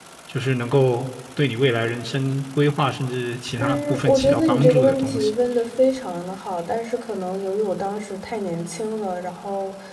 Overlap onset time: 3.6 s

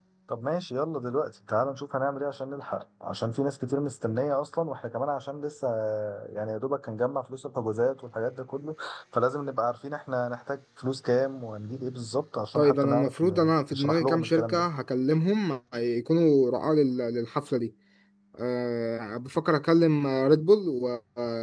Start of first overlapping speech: 12.6 s

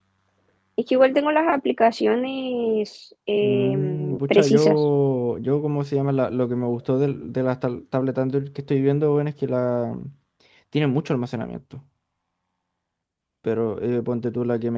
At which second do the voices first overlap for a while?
3.4 s

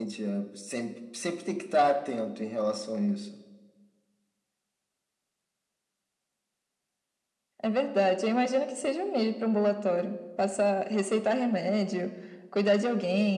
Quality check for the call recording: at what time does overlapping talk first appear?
none

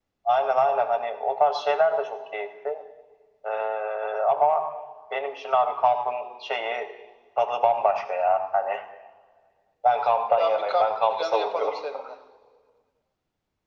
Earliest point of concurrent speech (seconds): 10.4 s

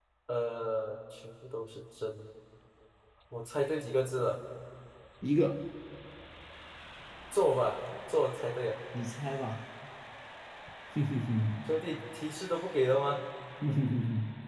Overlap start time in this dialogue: none

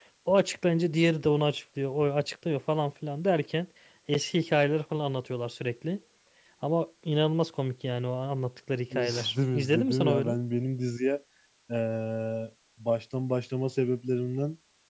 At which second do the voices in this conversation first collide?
8.9 s

